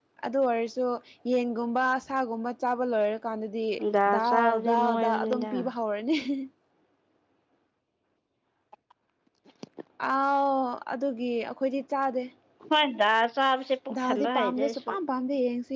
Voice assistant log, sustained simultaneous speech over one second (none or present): present